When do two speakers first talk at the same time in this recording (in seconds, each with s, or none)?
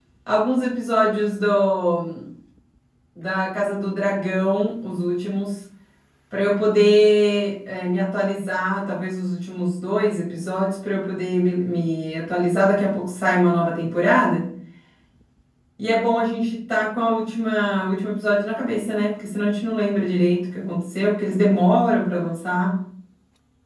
none